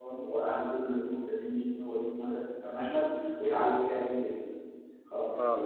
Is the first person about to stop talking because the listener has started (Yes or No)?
No